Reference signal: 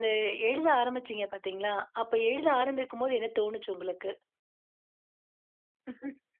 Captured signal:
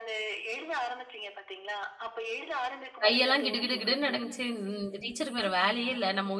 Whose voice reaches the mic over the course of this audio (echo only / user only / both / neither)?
both